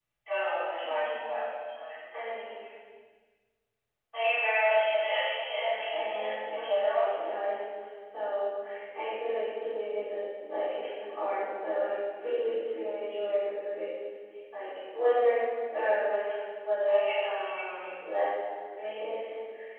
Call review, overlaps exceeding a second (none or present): present